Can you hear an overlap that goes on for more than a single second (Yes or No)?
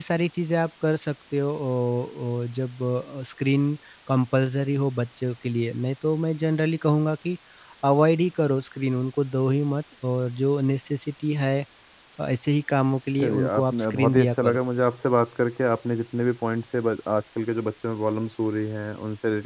Yes